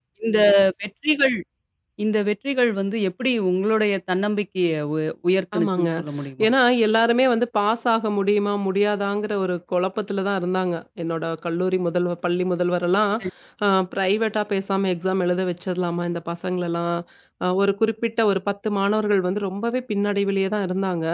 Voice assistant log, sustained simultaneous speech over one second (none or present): none